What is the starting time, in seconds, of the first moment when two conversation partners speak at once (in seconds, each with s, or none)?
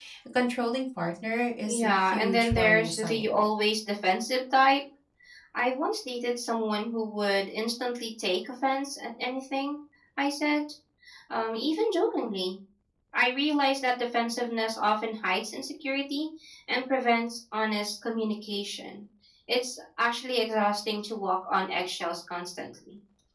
1.7 s